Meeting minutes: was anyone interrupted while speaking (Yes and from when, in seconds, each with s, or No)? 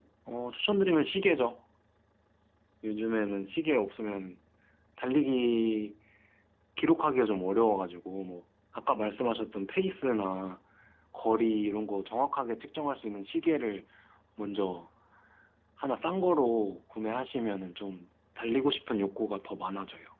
No